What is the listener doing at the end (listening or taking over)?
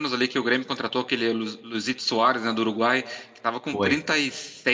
listening